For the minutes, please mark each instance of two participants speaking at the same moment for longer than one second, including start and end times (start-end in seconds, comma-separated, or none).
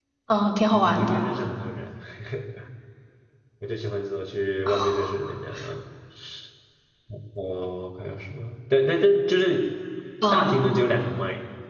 none